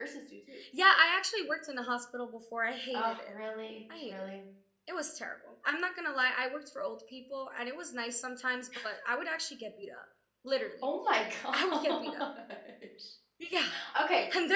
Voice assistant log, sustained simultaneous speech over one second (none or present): none